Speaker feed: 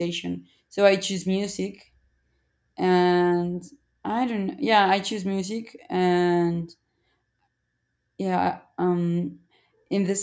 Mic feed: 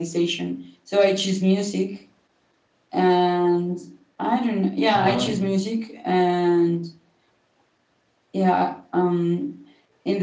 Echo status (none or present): present